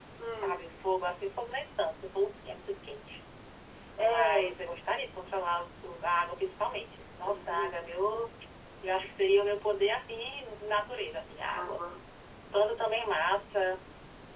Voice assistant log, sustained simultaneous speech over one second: none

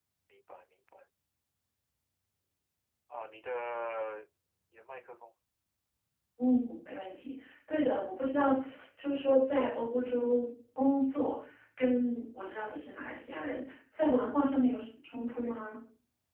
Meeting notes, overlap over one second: none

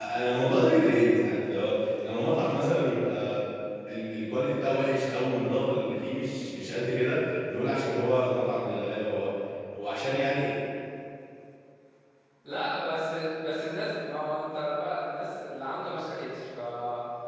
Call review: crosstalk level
none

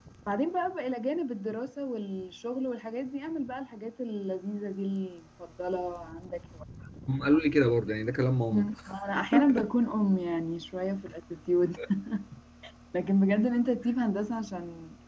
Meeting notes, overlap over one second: none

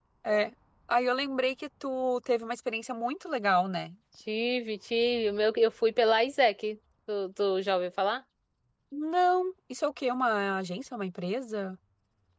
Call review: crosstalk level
none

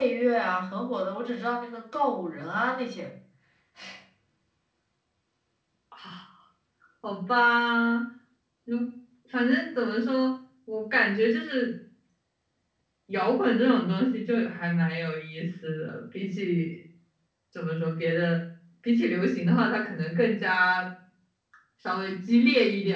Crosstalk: none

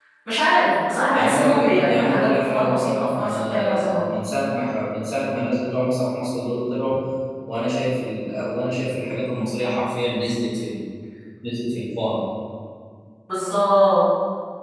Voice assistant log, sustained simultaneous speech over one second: present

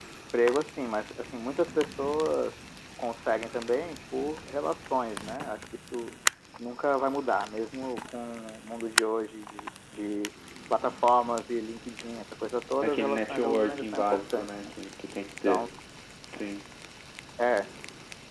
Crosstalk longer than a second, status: present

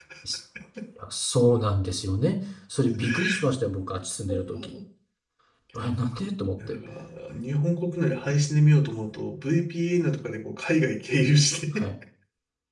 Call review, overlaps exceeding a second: none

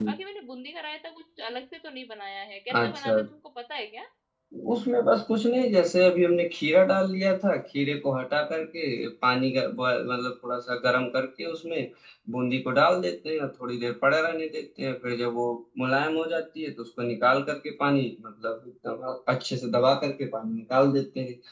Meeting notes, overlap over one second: none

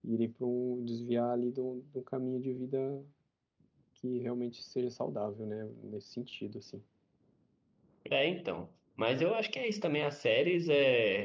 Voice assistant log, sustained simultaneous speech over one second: none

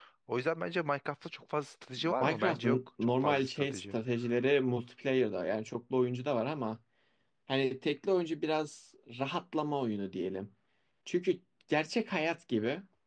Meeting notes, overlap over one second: present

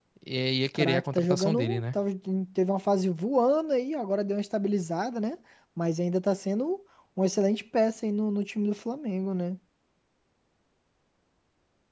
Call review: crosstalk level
present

